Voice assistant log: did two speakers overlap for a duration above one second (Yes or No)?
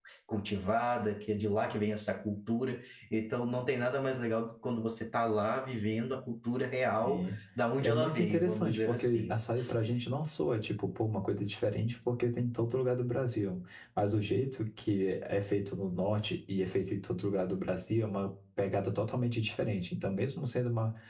Yes